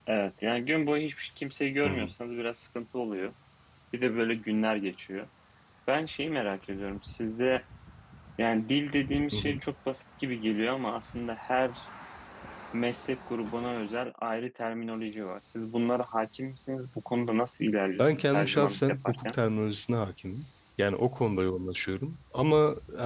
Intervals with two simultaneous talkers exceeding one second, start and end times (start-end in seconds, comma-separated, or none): 18.0-19.4